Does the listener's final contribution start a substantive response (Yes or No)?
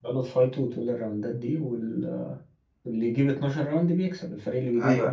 Yes